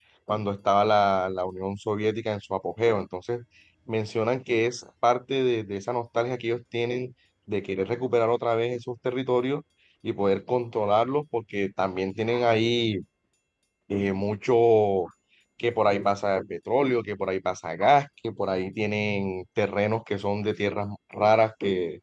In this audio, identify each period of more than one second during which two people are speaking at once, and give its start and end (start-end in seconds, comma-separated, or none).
none